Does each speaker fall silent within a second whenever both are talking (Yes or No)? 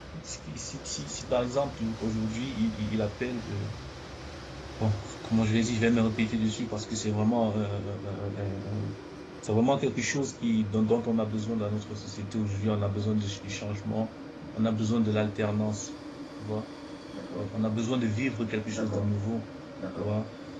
Yes